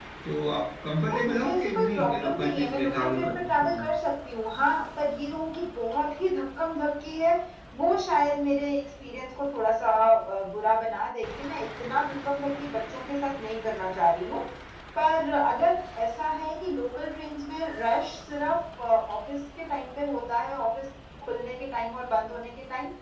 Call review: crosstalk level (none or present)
present